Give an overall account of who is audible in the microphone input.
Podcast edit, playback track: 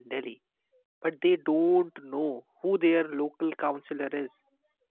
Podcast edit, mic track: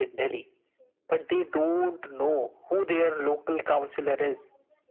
echo only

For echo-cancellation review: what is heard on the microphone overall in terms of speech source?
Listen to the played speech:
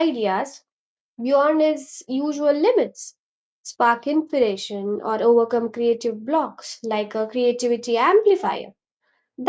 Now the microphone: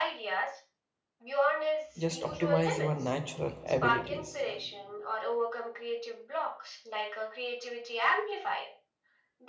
both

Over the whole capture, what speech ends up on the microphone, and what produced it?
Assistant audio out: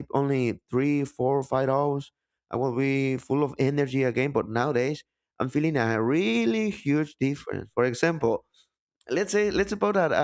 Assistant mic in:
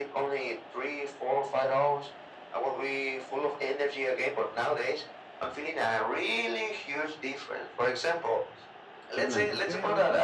both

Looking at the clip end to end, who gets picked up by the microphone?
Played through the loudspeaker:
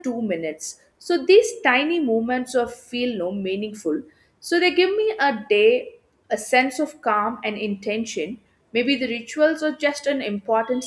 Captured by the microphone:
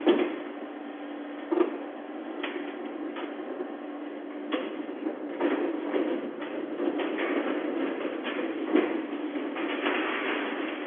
neither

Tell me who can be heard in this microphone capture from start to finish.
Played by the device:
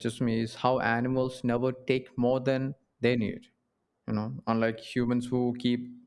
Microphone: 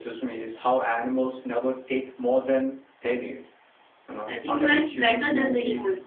both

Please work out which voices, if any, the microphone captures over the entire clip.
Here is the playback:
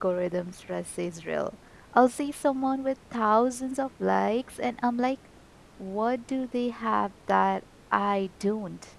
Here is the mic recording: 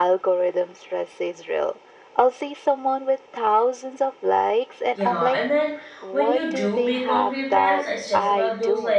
both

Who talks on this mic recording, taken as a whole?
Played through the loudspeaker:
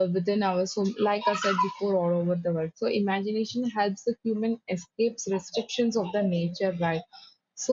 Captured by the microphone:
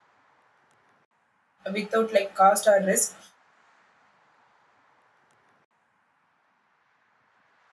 user only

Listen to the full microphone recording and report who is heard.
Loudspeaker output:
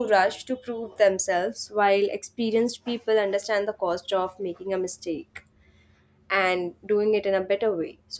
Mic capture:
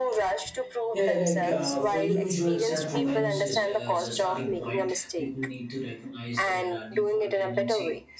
both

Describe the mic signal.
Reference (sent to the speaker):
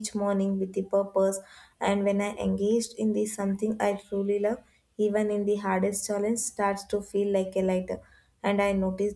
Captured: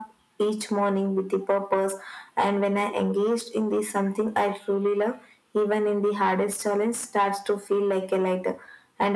echo only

